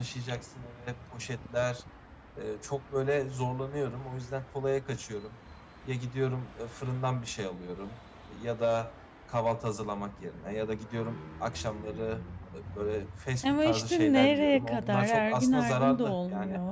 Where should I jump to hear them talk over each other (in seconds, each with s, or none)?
13.4 s